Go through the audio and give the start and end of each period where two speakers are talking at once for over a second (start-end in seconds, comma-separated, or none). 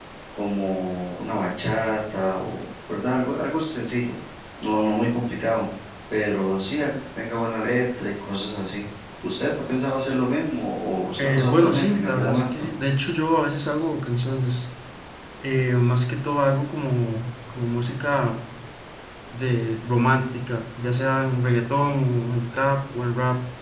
11.2-12.7